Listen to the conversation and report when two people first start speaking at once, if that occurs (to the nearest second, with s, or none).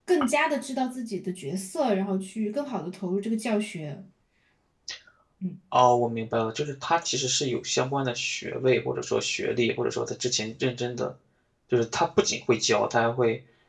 none